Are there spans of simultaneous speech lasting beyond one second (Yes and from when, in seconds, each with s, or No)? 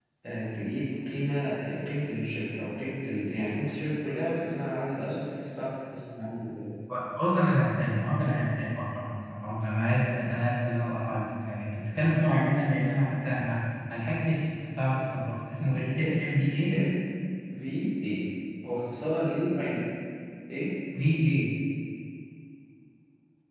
No